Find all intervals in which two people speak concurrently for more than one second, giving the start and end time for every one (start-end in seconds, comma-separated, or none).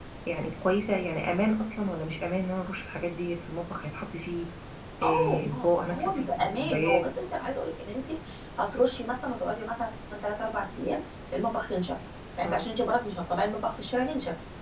5.0-7.1